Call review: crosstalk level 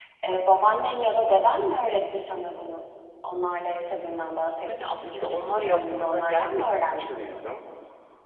present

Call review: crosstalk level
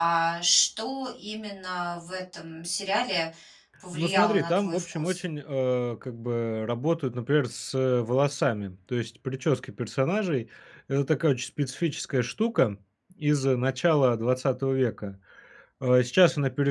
present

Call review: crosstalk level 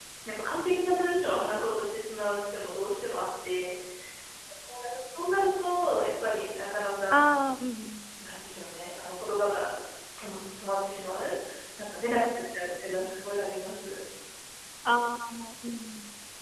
none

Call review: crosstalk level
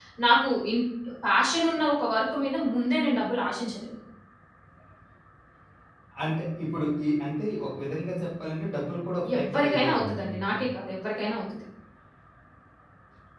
present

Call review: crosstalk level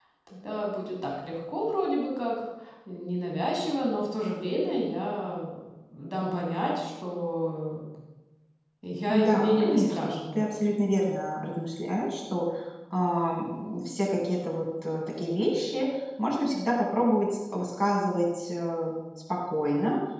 present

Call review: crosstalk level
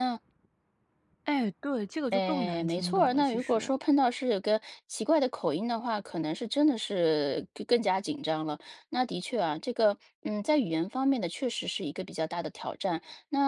present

